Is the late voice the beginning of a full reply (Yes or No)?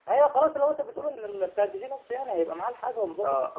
Yes